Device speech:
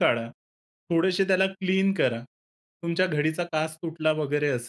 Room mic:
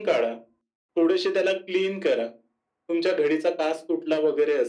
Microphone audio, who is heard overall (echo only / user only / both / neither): echo only